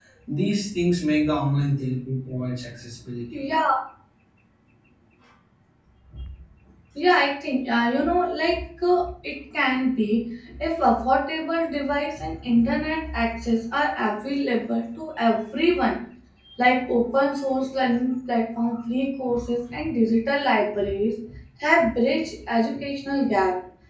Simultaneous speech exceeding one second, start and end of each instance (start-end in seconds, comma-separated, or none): none